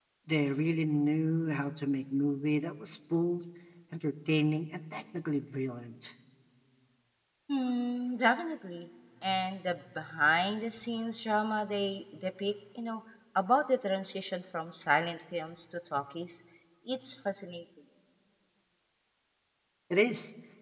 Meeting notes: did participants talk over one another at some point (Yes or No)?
No